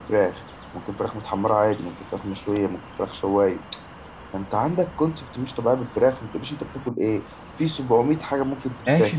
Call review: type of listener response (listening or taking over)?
taking over